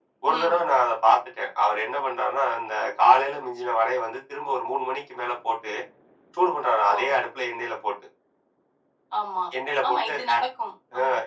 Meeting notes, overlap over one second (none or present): none